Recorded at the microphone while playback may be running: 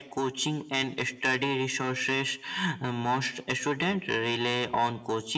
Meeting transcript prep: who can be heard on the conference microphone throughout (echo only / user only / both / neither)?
echo only